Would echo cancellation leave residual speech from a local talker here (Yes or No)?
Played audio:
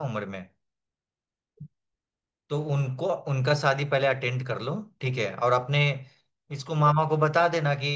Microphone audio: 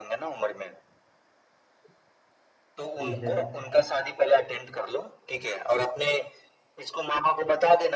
Yes